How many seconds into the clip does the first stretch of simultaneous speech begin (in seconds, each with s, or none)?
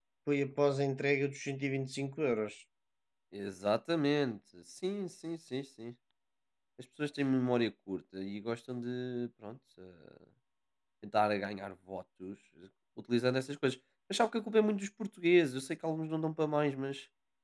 none